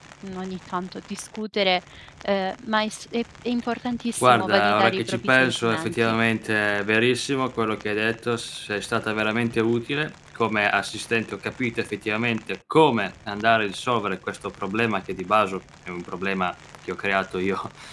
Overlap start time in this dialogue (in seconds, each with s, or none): 4.2 s